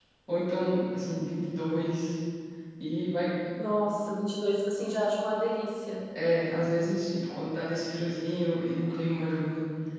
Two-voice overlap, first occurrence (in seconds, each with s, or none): none